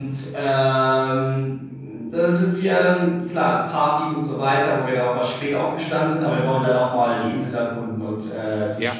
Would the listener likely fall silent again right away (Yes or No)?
No